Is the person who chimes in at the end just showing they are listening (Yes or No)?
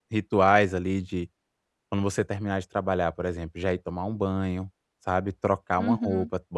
Yes